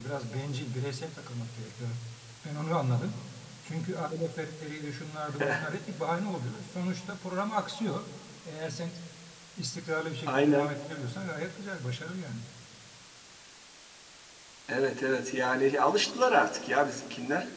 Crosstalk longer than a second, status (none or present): none